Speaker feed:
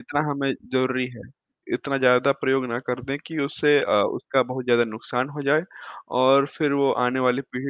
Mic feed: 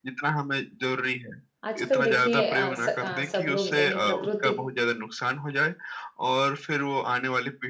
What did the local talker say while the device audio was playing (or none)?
आजकल देखिए अ, स अ, सब लोग यानी प्रकृति